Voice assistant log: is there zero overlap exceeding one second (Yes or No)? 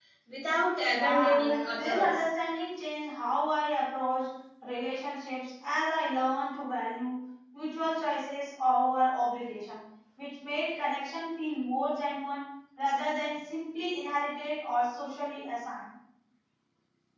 No